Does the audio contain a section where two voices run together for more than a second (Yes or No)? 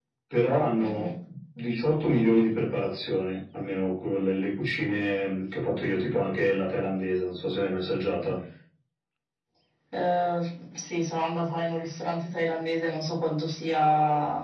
No